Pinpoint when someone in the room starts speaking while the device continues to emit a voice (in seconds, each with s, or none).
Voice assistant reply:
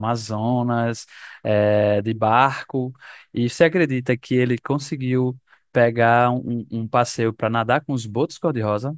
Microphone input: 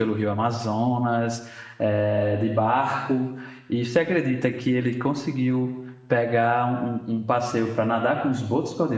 none